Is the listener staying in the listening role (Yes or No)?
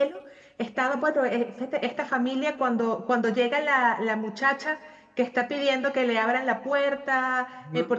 Yes